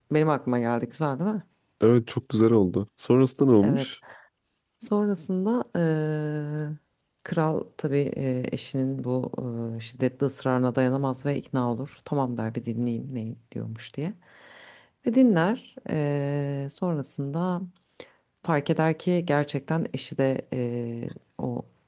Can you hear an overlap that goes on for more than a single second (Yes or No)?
No